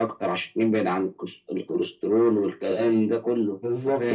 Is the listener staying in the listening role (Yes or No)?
No